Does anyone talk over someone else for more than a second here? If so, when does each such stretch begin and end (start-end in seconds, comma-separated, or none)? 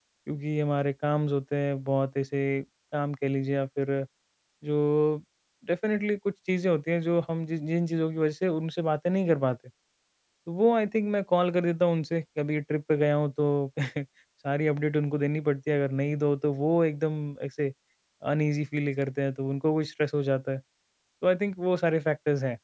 none